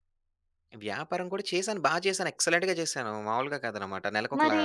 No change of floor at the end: Yes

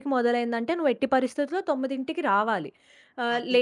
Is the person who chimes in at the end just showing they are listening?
Yes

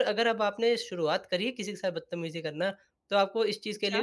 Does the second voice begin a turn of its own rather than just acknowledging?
No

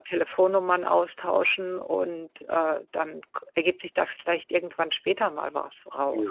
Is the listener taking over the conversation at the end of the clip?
Yes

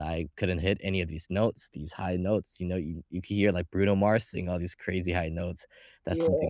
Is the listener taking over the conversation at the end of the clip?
No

